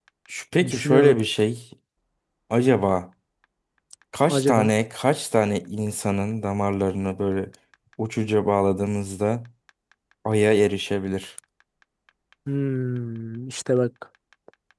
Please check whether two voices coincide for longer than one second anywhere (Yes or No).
No